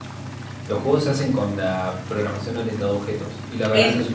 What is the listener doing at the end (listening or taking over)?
listening